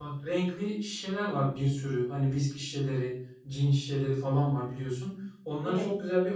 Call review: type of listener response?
listening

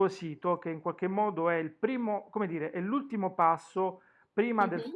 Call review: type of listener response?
listening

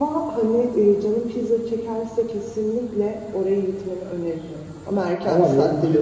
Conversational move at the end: taking over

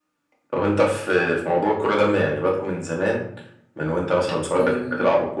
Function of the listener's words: listening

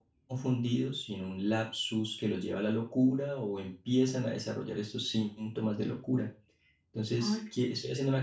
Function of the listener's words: listening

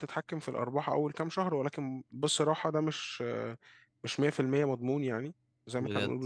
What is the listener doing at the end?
listening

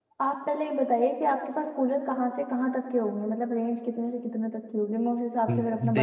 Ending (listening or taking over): taking over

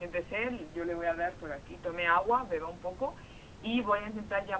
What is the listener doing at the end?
listening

